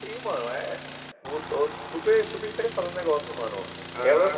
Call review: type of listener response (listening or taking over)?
listening